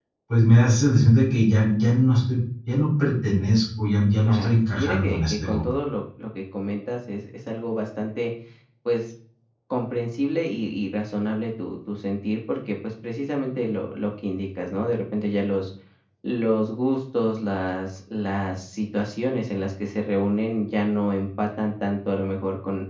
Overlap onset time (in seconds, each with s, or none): 4.2 s